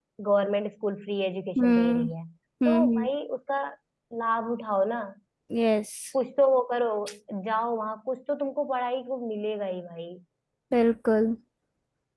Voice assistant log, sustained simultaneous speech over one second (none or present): none